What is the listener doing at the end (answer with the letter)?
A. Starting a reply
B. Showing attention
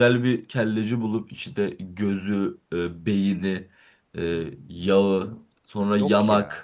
B